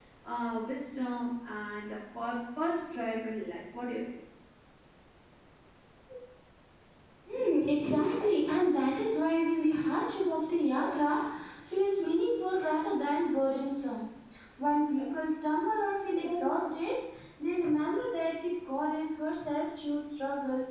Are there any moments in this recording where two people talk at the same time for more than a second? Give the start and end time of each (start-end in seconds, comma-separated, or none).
none